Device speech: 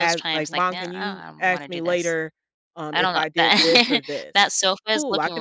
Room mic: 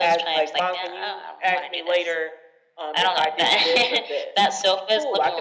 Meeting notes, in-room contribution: none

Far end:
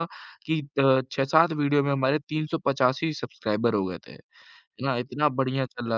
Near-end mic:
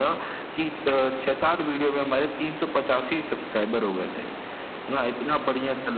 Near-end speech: none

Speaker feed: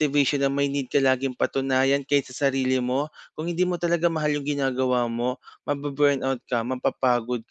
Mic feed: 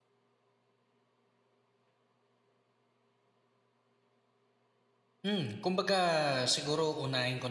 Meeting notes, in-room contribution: present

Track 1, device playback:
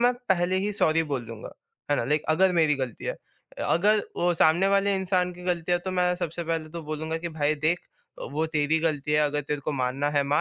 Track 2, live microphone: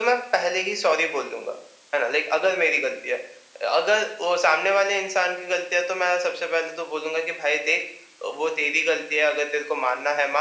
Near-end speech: none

